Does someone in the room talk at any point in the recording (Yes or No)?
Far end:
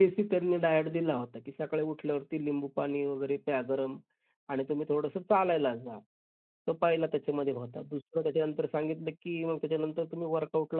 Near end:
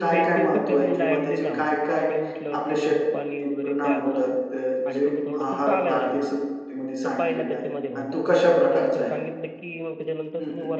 Yes